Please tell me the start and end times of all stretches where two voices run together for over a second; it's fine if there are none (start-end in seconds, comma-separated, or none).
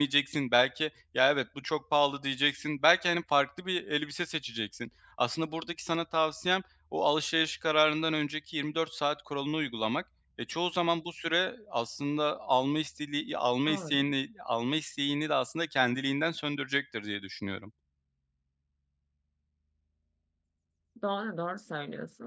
none